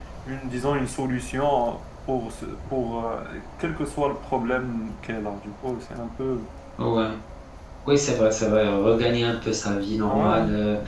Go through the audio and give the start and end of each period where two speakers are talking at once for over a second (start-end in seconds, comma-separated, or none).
none